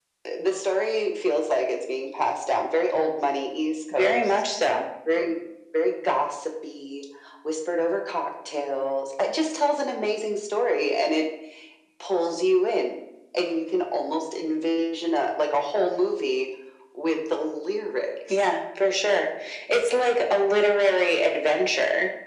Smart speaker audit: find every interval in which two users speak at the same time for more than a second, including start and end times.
none

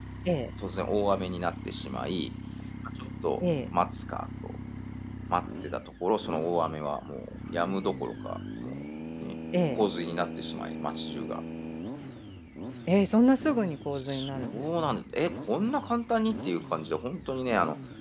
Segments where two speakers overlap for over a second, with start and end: none

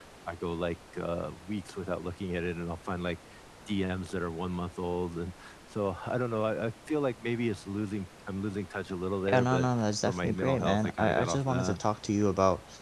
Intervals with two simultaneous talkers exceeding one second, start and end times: 10.1-11.8

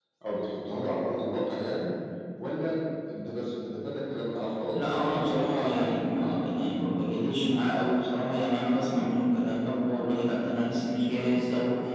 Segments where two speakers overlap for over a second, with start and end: 4.7-6.2

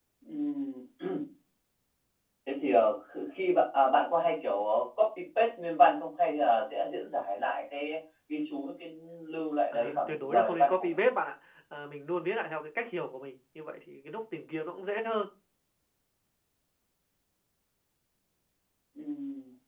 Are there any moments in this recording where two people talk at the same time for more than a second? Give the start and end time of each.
9.7-11.0

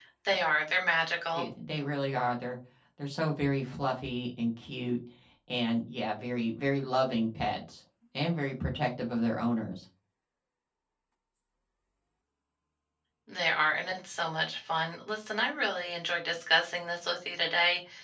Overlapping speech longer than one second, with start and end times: none

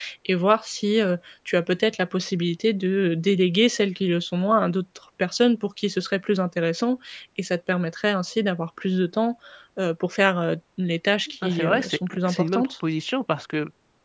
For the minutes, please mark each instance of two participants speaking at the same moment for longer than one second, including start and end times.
11.4-12.7

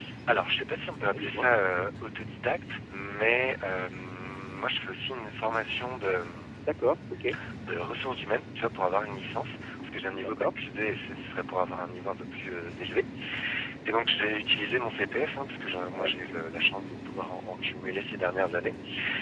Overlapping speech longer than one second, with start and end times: none

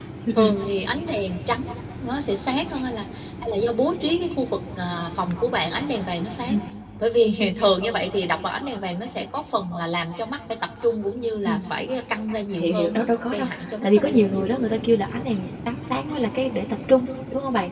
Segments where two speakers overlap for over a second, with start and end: 12.6-14.2

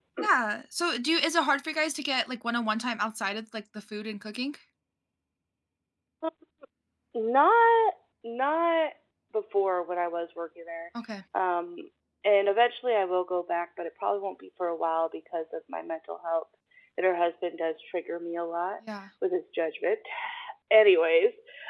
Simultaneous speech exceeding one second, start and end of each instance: none

